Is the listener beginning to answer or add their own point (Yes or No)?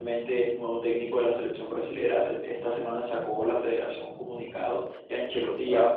No